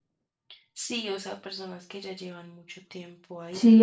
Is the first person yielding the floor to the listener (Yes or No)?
Yes